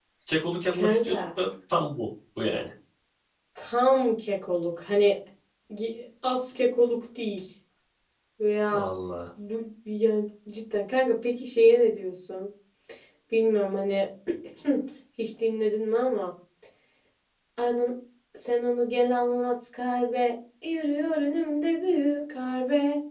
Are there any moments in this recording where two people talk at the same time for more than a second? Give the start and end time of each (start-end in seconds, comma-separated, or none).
none